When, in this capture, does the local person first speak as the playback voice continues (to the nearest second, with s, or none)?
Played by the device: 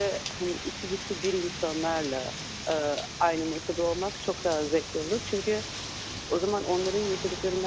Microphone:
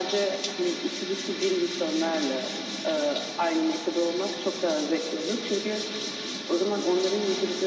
none